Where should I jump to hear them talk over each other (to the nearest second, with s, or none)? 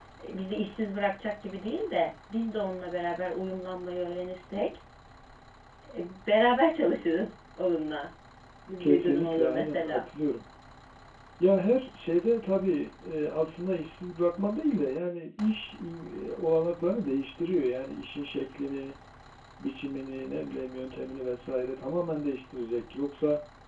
9 s